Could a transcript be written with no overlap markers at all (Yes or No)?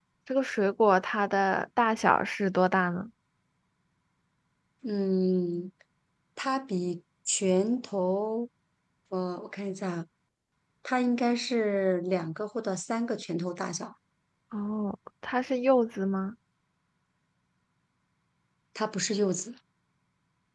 Yes